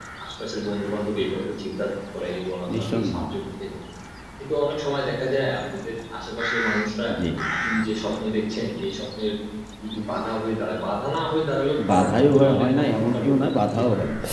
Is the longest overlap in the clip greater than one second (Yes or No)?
Yes